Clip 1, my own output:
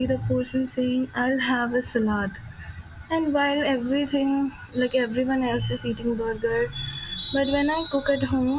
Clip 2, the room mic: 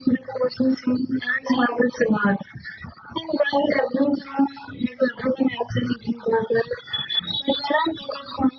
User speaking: No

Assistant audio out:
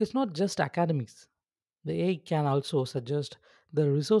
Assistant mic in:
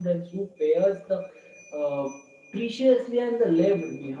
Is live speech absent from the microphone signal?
No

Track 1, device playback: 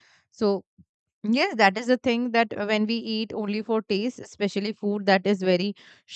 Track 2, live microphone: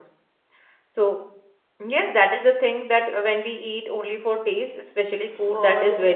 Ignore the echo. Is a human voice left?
Yes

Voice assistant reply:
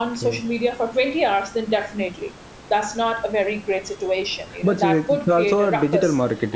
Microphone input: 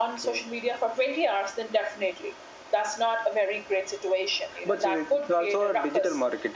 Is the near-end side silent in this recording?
Yes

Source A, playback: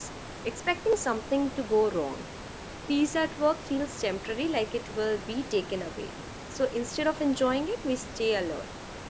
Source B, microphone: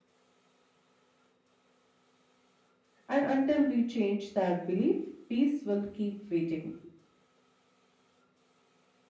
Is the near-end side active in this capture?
Yes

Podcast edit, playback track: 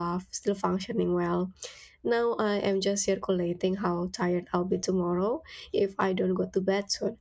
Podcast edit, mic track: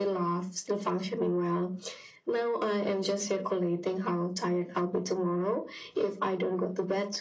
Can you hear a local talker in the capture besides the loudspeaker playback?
No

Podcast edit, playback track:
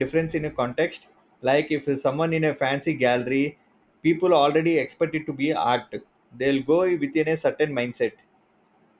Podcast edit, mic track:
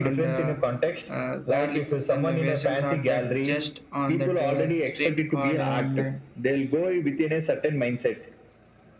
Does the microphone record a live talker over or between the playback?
Yes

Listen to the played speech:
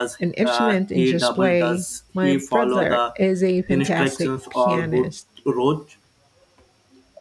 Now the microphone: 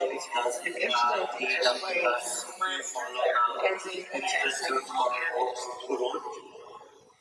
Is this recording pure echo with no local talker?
Yes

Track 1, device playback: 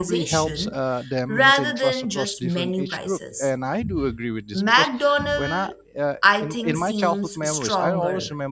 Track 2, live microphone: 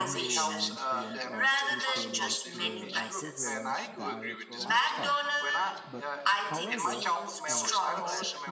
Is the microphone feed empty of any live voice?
No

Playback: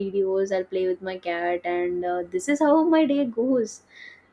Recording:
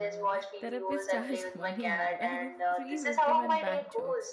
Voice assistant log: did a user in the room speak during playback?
Yes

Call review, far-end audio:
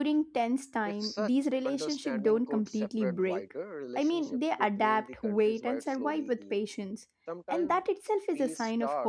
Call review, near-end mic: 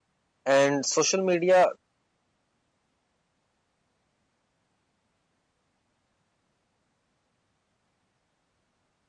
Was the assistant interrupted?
Yes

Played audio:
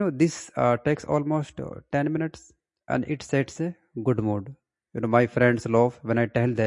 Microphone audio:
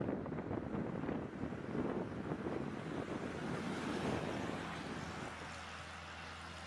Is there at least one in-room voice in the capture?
No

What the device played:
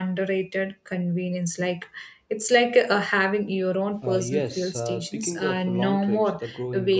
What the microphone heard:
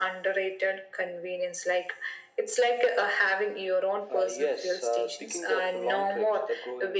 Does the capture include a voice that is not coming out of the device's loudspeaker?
No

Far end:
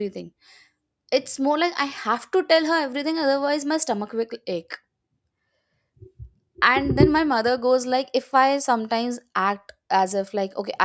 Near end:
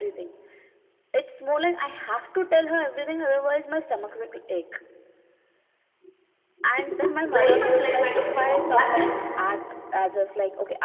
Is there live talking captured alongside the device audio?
Yes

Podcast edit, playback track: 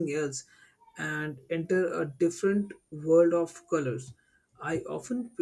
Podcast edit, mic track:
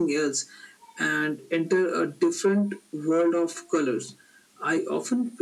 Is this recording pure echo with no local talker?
Yes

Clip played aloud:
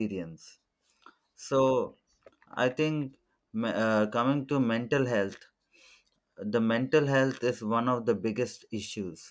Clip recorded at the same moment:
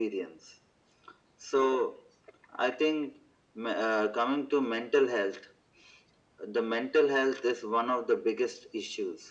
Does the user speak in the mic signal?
No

